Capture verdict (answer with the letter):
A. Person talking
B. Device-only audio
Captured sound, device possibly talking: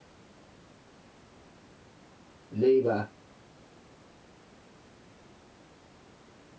A